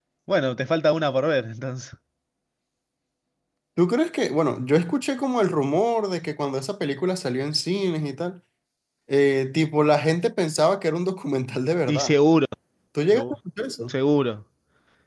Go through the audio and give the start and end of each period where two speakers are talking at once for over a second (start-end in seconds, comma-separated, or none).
none